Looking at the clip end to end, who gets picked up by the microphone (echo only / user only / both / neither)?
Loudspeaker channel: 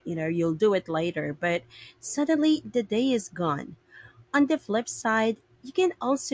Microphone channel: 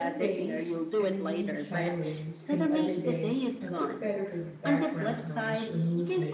both